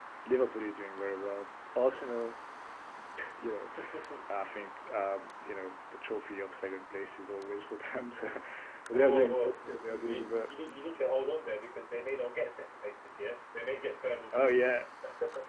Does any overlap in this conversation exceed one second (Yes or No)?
Yes